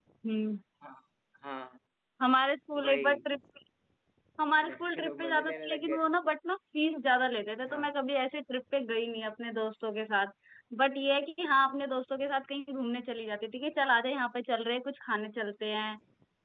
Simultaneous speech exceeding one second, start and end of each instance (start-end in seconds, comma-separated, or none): 4.6-6.1